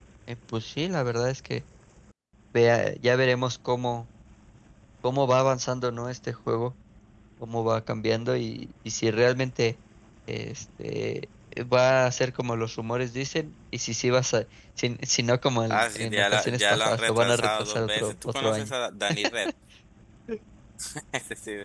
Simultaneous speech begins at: 15.7 s

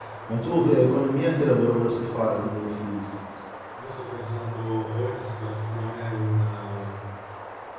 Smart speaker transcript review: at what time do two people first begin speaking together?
none

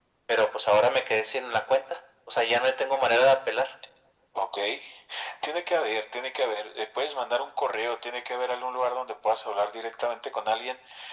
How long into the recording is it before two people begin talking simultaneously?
none

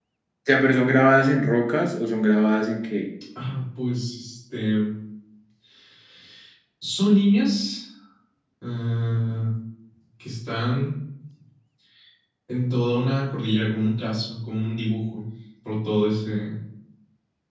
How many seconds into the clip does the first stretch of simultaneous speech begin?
none

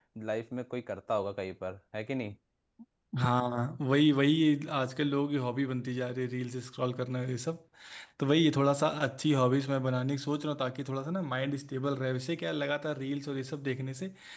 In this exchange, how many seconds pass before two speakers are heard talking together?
none

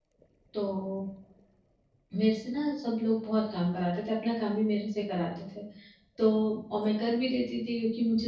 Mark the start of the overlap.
none

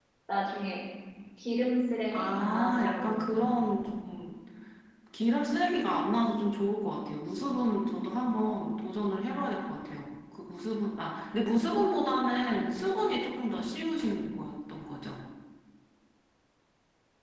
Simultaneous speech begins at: 2.1 s

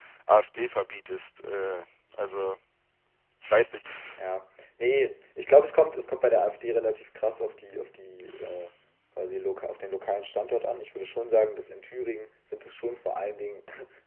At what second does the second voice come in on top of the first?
none

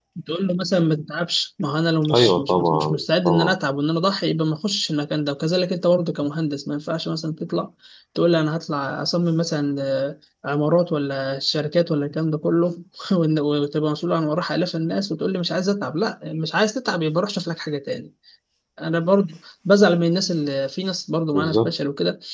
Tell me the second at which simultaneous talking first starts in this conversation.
2.1 s

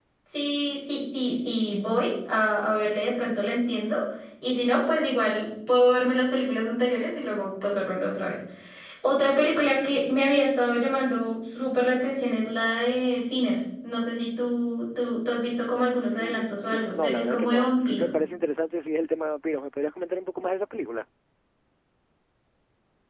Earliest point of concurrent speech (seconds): 16.1 s

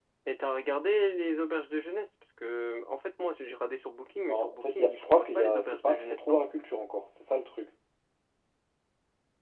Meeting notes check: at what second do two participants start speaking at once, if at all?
4.3 s

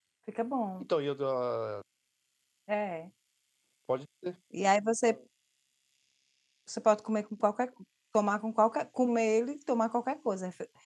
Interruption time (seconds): none

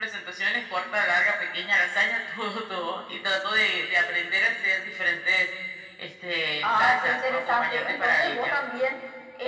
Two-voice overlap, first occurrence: 6.6 s

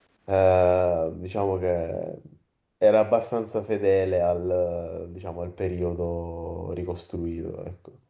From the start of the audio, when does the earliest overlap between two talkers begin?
none

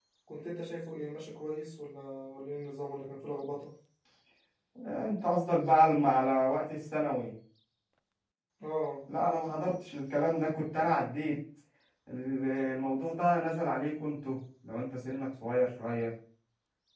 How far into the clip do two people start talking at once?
none

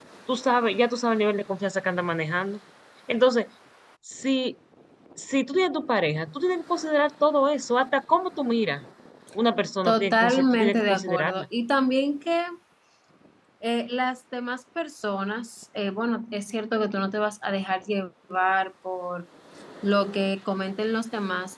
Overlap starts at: 9.8 s

